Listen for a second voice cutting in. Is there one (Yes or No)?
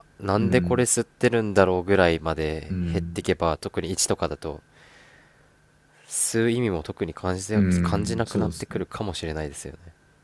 Yes